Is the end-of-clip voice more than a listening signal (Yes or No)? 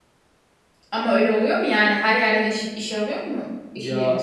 Yes